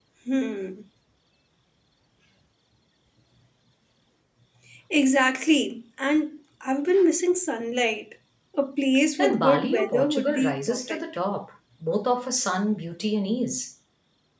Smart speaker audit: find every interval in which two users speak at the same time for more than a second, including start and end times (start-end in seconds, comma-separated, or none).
9.2-11.0